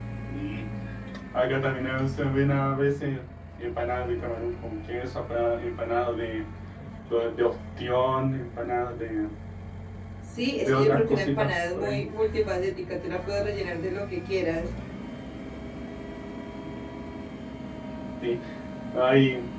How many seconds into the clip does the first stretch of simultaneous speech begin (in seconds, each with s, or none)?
10.6 s